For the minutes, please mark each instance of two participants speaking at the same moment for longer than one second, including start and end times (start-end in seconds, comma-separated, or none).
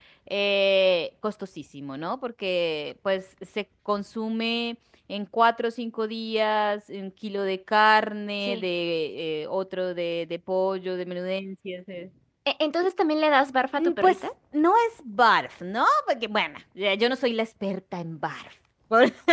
none